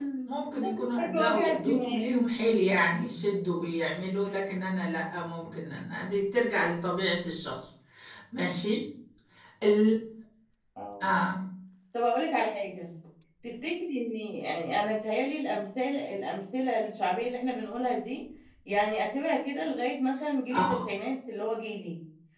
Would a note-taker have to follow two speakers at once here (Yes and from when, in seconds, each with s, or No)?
Yes, from 0.6 s